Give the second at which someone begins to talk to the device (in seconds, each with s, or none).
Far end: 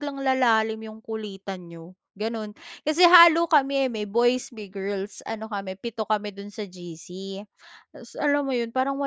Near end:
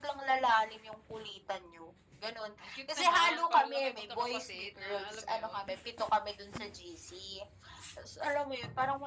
2.6 s